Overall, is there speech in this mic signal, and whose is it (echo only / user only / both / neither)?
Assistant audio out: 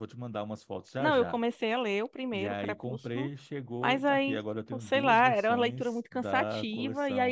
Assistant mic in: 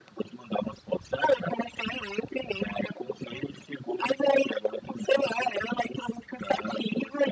echo only